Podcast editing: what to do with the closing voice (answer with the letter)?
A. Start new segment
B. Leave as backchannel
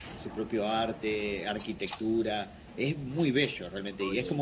B